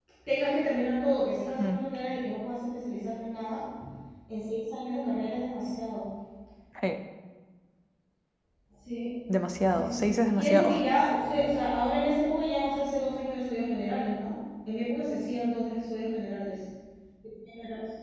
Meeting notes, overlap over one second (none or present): present